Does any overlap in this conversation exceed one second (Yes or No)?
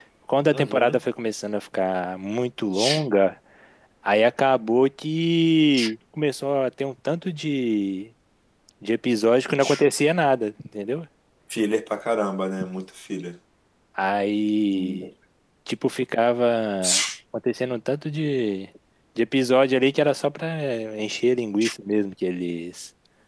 No